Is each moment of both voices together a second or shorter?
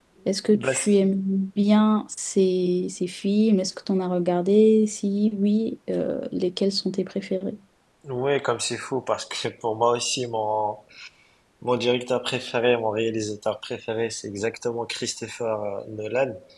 Yes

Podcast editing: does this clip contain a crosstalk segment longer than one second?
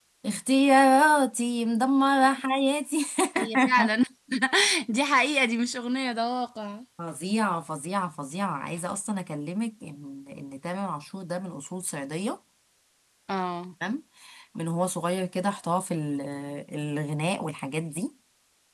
No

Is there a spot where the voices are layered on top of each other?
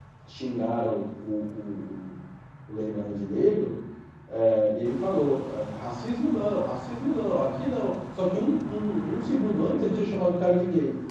No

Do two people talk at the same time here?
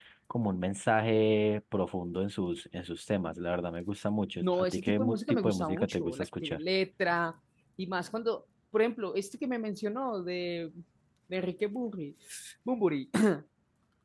Yes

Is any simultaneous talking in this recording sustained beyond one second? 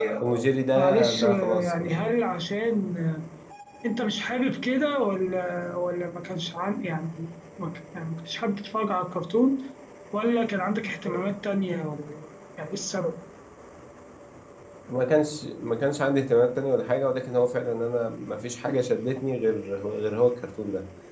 Yes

